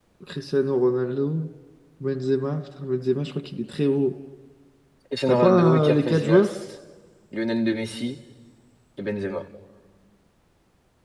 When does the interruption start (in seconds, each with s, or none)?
5.3 s